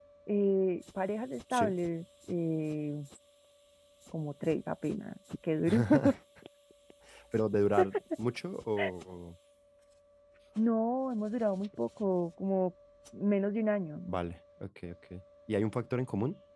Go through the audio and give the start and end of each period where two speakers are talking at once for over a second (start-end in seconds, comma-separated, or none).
none